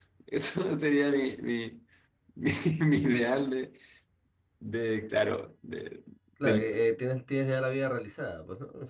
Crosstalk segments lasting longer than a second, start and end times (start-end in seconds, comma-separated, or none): none